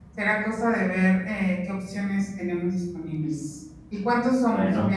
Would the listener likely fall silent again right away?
Yes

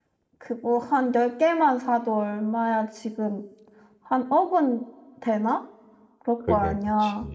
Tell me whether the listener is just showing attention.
No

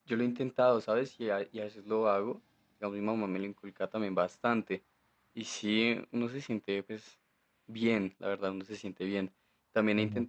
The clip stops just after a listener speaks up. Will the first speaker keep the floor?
Yes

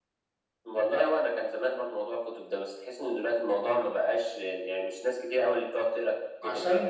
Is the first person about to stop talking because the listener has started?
Yes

